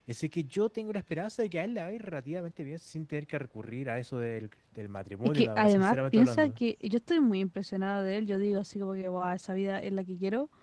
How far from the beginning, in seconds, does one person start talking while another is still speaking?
5.2 s

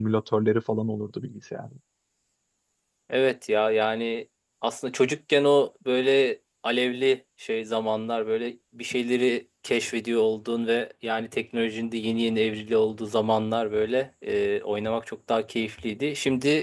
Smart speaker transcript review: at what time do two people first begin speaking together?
none

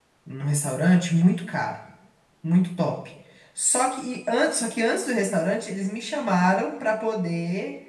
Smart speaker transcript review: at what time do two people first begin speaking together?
none

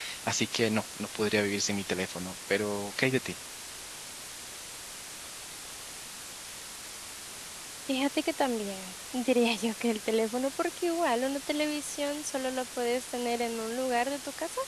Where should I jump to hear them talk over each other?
none

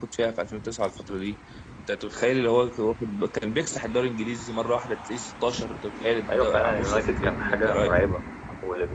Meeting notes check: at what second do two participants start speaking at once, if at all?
6.3 s

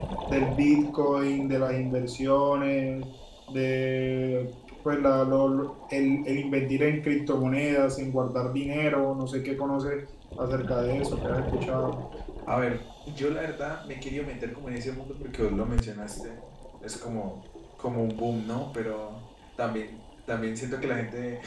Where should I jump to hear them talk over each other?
none

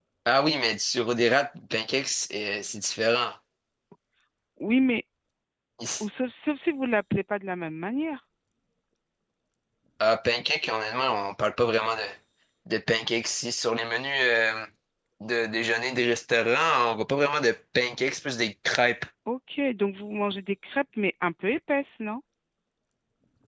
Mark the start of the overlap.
none

